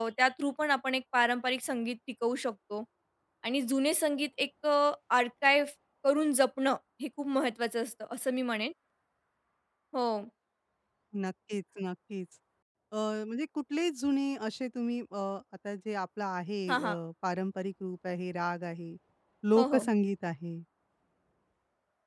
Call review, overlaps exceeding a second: none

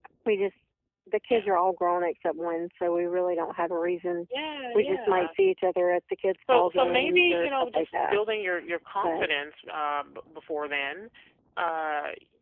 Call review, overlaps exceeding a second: present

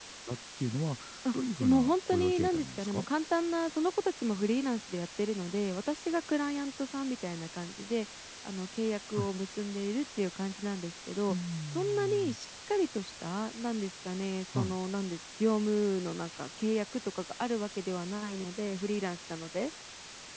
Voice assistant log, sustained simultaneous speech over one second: present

